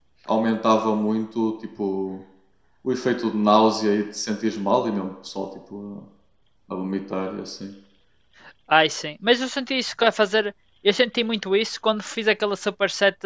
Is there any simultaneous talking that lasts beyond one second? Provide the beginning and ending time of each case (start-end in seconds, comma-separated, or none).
none